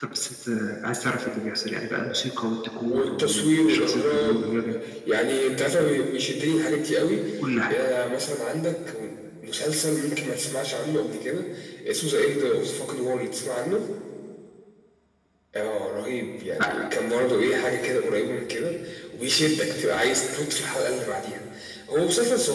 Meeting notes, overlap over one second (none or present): present